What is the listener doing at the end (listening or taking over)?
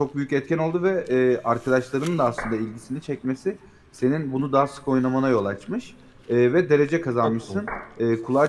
listening